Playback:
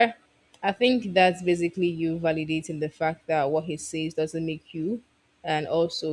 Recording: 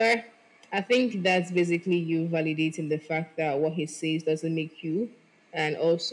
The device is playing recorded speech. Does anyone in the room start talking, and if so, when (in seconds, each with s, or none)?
none